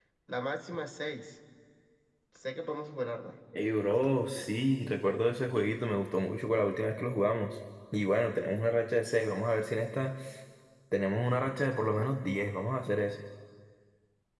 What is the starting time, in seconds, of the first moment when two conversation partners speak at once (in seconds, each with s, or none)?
none